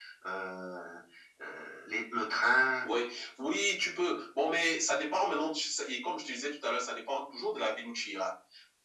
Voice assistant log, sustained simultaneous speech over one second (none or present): none